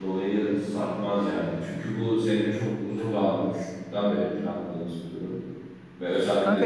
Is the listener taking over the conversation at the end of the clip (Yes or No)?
Yes